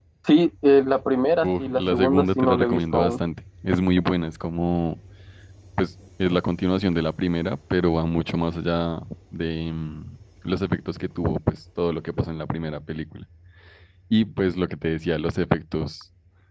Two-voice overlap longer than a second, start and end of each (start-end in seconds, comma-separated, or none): 1.4-3.2